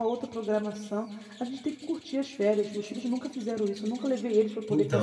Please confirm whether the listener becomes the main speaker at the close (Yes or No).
Yes